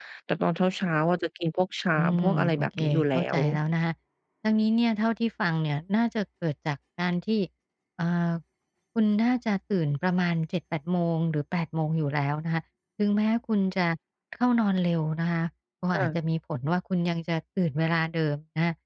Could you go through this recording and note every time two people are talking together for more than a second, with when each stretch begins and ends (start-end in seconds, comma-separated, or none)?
2.0-3.4